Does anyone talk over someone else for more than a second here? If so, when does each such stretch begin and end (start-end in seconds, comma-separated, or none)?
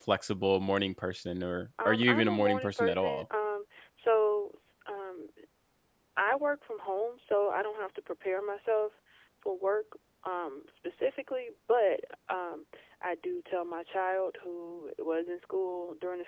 1.8-3.2